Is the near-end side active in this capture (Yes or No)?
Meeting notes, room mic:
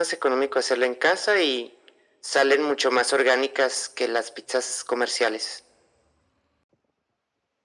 No